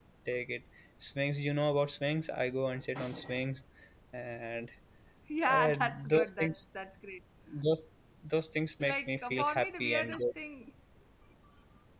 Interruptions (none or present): present